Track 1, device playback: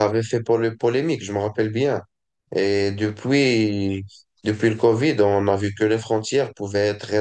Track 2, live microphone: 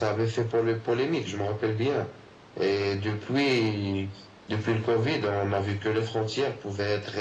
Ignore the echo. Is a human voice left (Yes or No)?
No